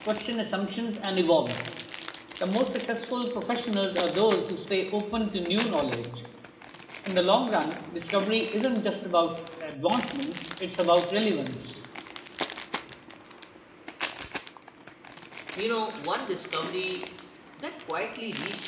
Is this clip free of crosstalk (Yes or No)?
Yes